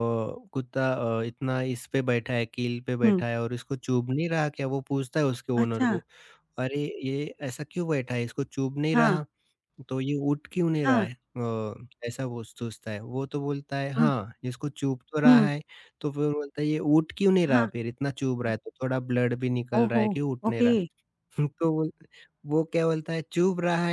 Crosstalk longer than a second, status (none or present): none